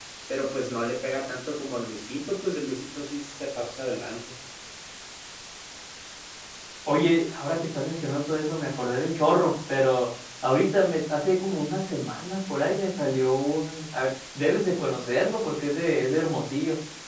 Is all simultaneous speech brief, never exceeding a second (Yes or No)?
Yes